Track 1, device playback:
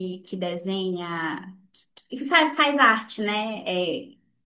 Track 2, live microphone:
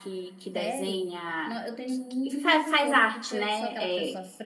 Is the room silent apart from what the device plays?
No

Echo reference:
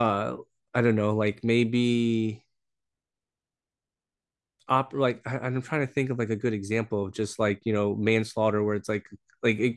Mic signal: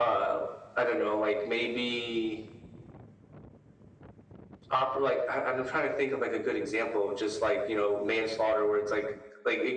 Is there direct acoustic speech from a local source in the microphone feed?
No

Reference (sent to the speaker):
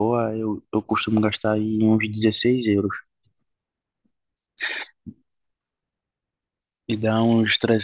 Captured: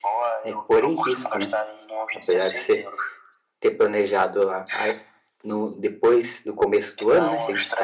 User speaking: Yes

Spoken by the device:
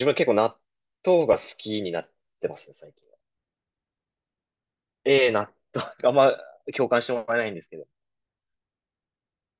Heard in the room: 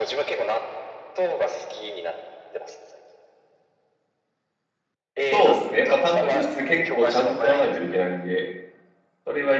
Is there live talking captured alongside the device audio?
Yes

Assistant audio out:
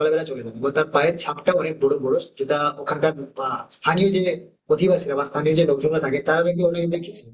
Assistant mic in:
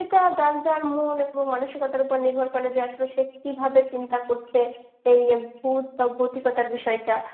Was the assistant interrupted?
Yes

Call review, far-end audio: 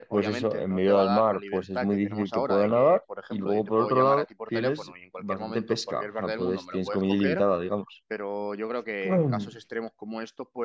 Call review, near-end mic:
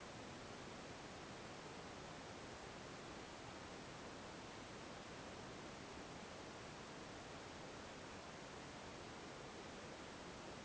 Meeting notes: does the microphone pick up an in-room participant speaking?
No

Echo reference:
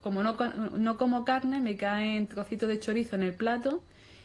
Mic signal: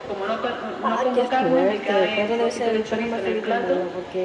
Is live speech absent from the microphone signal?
No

